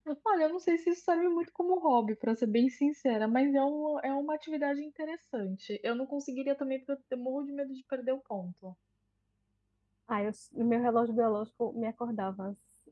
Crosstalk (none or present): none